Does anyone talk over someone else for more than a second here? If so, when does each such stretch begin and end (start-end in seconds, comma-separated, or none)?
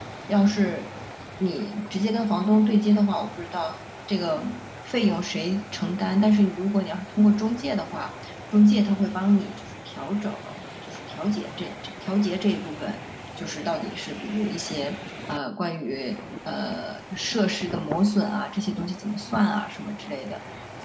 none